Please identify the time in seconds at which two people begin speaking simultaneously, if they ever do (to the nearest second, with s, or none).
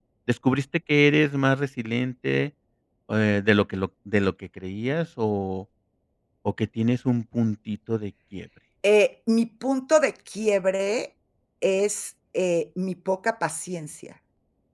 none